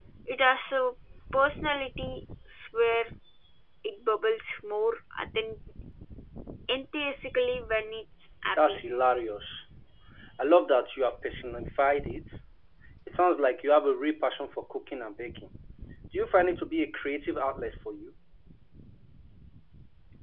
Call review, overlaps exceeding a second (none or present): none